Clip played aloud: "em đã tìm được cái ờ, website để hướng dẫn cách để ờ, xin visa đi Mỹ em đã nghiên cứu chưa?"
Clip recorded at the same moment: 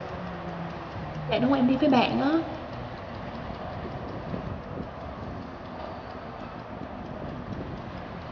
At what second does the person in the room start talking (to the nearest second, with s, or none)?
1 s